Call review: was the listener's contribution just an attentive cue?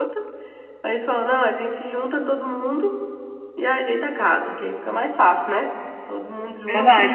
No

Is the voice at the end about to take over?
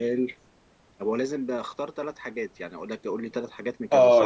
Yes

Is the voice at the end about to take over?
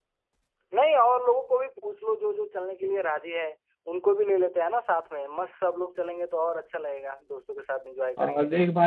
Yes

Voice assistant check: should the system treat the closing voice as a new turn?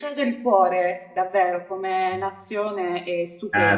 Yes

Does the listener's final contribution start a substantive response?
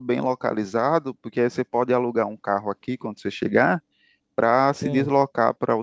No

